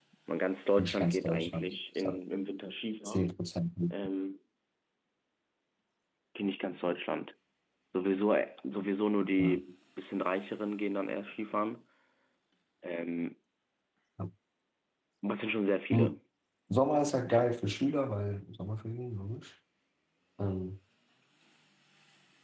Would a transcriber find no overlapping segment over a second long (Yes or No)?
No